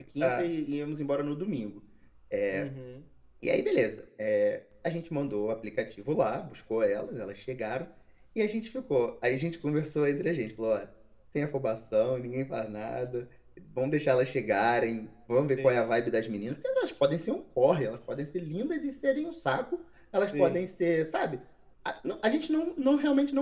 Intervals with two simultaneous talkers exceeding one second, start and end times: none

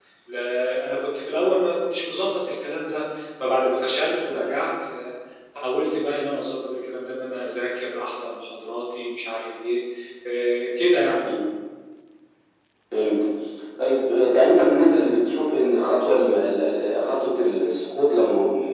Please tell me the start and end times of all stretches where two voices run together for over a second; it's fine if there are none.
none

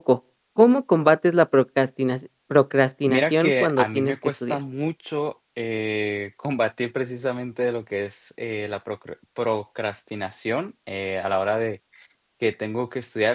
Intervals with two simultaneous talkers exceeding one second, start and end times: 3.1-4.6

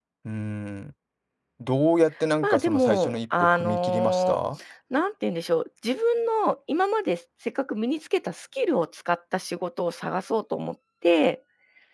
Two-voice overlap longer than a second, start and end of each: 2.4-4.4

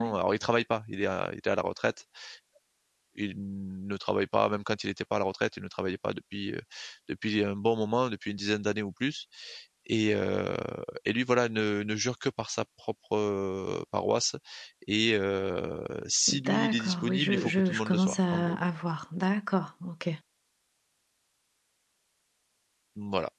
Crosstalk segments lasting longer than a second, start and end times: 16.3-18.6

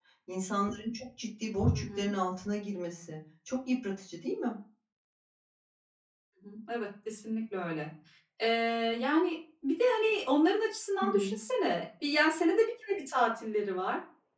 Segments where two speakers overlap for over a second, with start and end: none

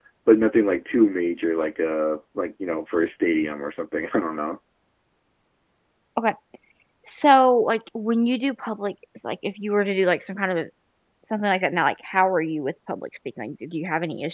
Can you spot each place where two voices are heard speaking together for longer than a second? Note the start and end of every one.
none

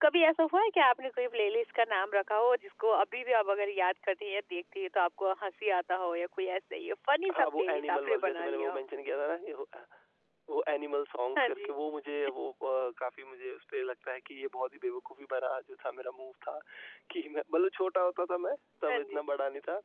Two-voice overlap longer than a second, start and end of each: 7.3-8.8

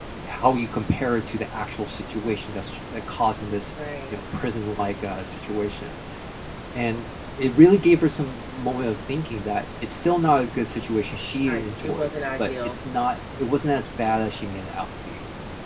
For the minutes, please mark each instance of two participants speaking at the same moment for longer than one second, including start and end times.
11.5-12.8

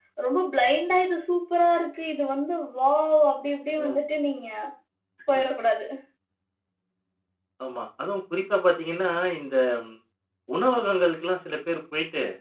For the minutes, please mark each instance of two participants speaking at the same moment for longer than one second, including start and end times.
none

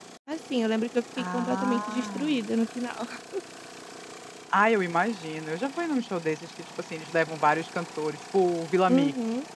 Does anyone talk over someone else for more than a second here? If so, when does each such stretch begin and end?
1.2-2.4

